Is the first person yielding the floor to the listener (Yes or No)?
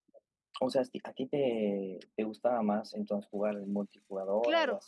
Yes